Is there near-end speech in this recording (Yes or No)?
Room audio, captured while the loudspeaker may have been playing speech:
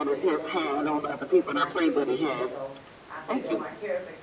Yes